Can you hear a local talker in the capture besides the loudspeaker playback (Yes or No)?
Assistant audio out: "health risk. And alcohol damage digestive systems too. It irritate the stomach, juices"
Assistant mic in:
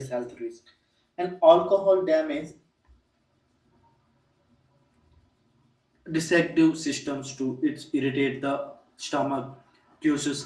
No